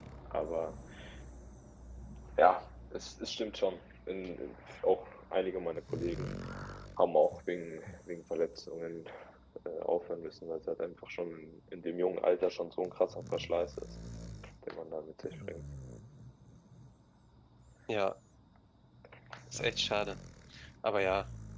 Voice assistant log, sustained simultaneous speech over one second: none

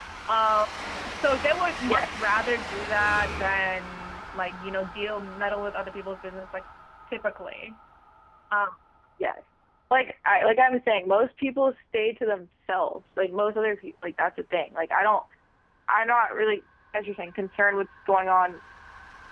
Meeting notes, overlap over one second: none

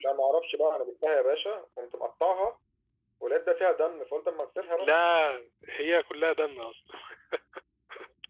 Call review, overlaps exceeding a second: none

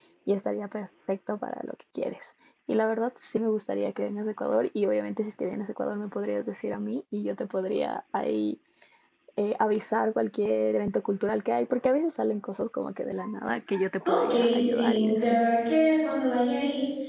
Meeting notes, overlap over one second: present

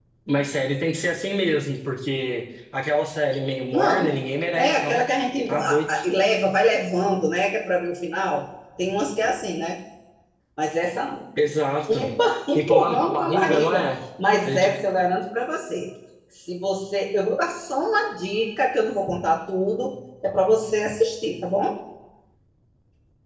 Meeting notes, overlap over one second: present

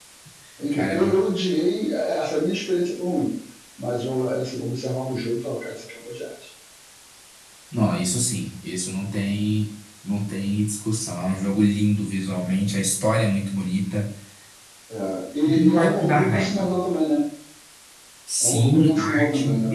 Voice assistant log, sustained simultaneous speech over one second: present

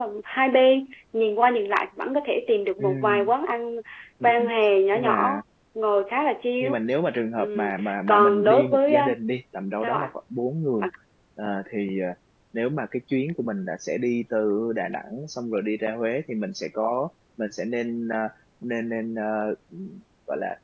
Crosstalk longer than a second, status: present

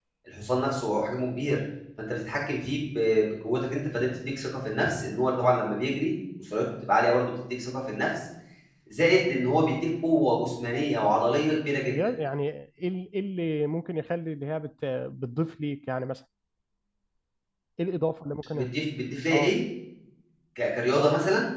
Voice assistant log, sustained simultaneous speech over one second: none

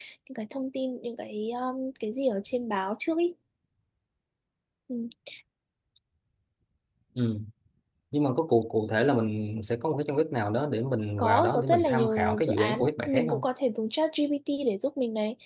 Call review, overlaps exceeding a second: present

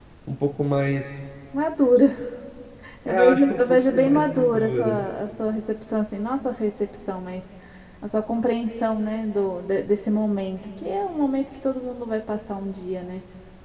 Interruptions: present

